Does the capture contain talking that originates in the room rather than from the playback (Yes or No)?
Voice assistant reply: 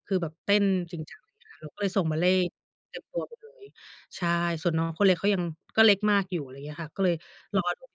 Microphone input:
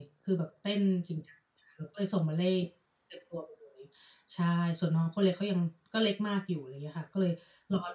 No